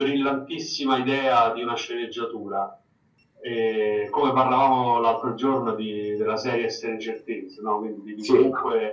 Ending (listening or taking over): listening